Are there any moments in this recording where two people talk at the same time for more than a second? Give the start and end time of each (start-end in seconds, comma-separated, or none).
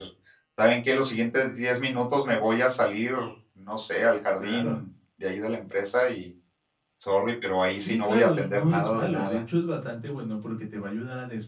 7.8-9.4